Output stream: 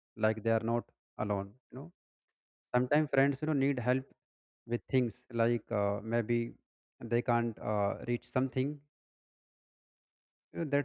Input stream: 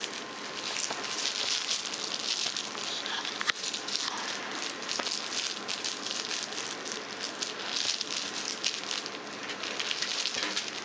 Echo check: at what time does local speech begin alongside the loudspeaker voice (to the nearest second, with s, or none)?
none